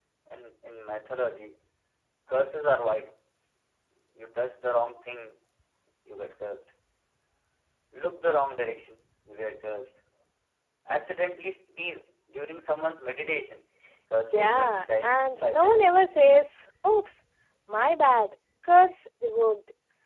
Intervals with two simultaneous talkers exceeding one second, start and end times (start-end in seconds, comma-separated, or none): 14.3-15.8